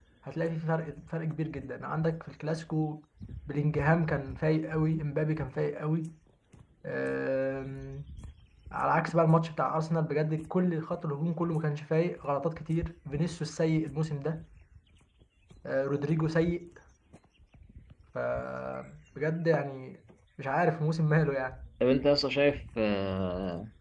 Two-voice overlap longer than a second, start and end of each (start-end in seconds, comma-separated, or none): none